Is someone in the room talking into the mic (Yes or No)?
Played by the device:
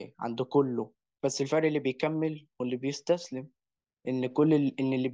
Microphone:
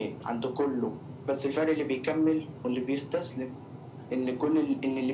No